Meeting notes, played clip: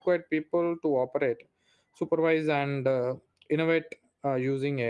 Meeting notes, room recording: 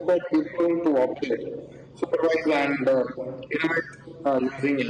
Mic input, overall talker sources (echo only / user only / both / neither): echo only